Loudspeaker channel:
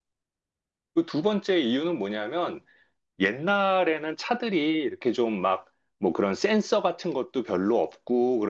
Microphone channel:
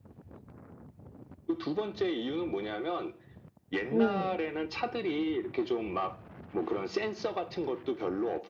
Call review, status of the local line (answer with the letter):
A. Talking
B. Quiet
A